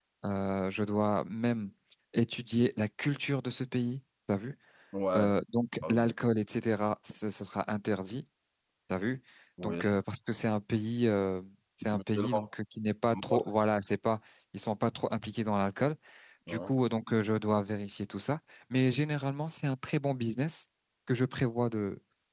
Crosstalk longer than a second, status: none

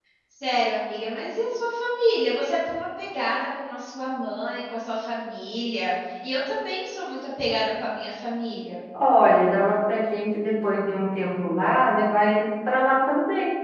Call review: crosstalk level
none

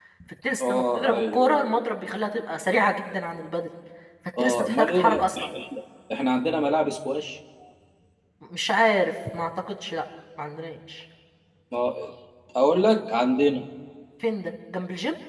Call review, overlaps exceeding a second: present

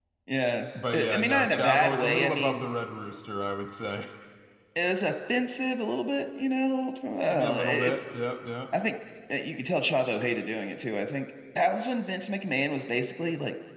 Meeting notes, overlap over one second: present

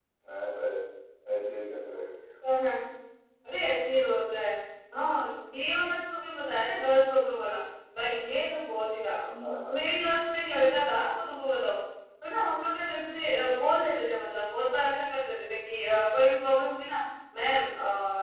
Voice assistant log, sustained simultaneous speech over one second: none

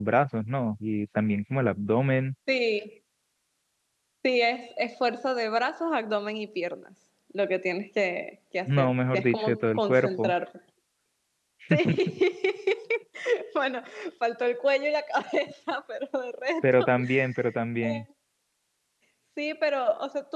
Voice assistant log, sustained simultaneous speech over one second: present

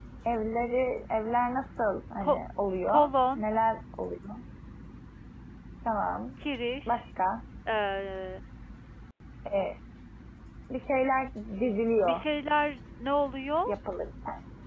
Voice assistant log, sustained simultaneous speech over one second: none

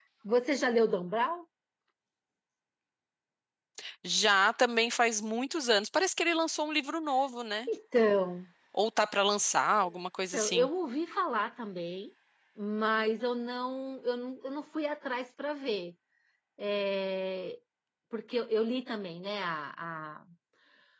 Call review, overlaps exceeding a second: none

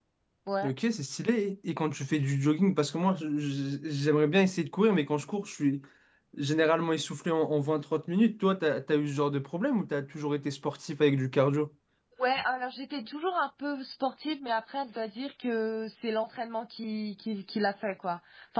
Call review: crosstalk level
none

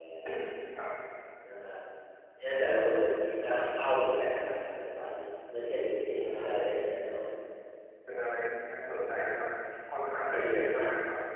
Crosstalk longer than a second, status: none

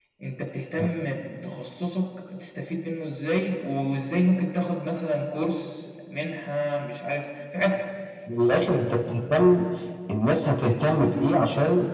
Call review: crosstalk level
none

